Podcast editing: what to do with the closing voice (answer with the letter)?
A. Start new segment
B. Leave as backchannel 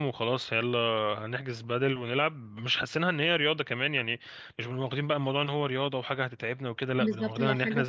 A